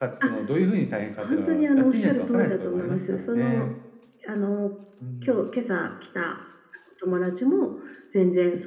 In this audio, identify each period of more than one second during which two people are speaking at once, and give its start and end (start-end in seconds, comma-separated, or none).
1.3-3.6